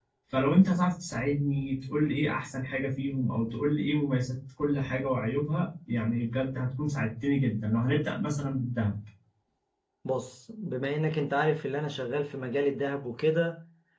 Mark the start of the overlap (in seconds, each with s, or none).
none